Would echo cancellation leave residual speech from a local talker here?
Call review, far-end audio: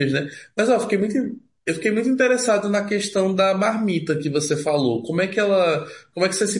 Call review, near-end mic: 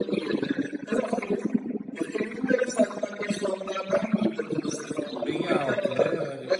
Yes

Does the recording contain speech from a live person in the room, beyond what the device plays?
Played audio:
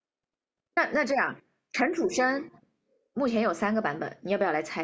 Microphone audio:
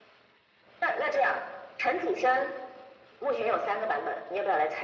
No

